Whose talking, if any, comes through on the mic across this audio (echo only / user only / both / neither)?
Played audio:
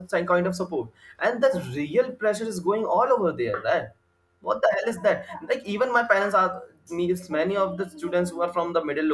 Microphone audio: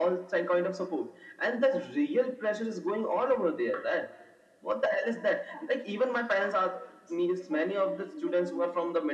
echo only